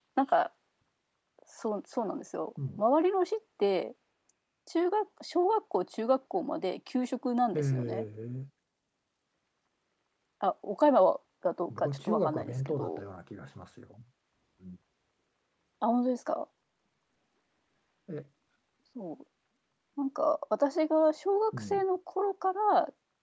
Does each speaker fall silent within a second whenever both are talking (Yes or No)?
No